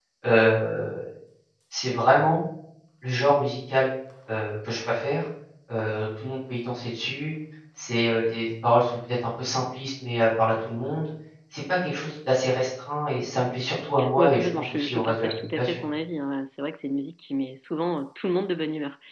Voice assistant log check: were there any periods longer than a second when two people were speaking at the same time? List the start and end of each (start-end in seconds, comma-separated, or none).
14.2-15.8